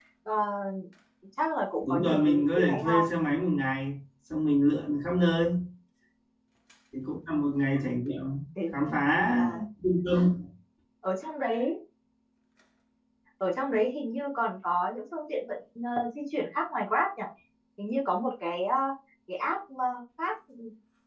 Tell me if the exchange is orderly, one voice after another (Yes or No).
No